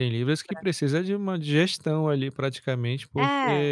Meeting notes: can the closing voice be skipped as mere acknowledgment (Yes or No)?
Yes